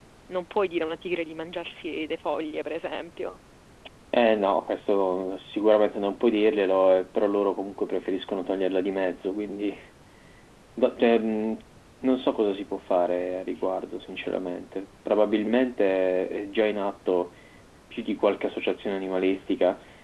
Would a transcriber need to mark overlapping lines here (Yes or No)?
No